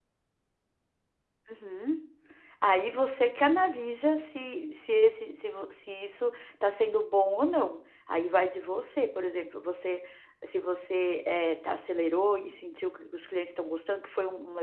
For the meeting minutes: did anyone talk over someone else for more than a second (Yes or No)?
No